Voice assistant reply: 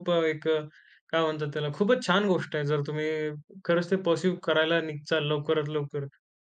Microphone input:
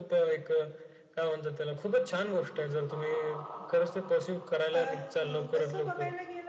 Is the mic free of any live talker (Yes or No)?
No